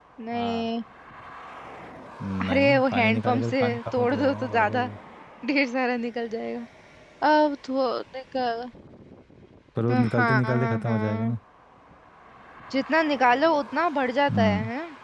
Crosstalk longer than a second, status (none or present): present